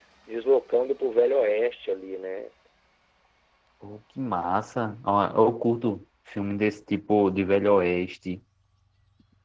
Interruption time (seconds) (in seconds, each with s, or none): none